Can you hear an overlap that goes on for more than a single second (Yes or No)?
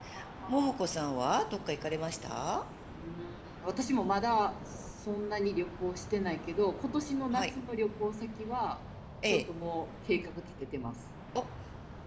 No